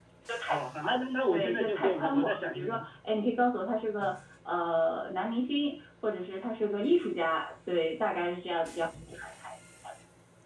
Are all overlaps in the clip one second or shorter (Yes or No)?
No